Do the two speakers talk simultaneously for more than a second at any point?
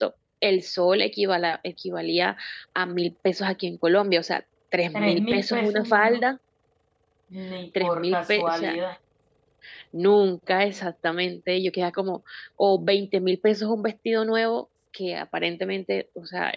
Yes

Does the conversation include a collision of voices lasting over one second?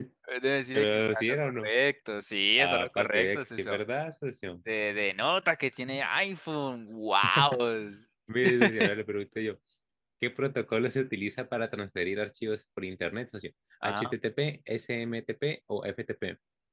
Yes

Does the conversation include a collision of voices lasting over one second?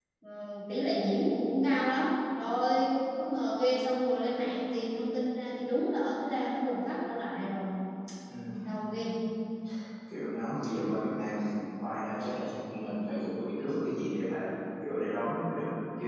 No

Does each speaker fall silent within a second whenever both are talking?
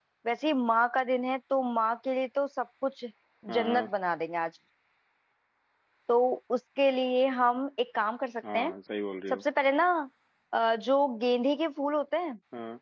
Yes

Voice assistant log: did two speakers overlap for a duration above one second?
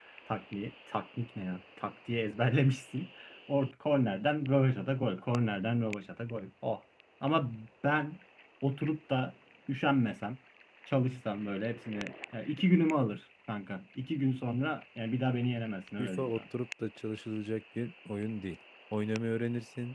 No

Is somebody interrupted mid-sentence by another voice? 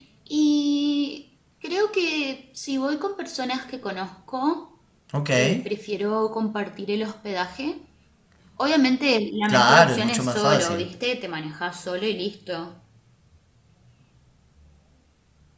Yes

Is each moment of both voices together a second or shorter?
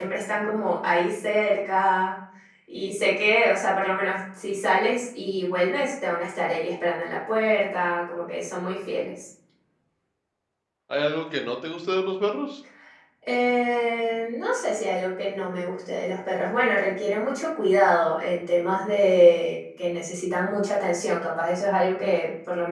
Yes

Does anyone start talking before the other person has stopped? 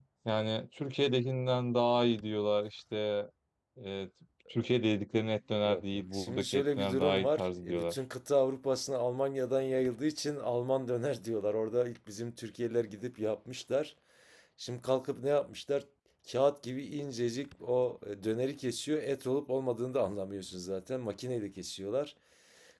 Yes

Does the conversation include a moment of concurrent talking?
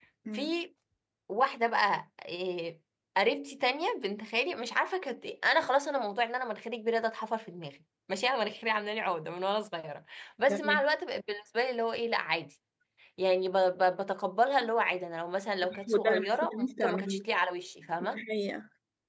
Yes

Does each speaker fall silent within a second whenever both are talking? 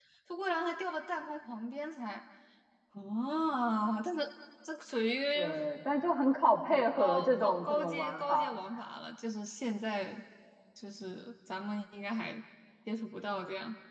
No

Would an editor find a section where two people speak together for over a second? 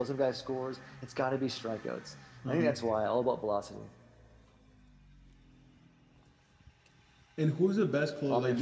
No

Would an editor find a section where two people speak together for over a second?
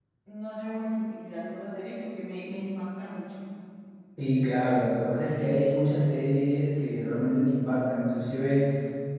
No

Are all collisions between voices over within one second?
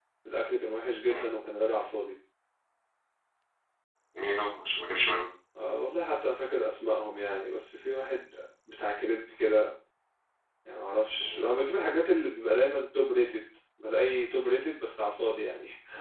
Yes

